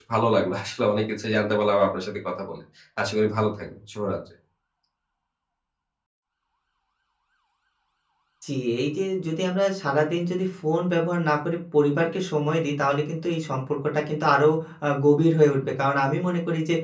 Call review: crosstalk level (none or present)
none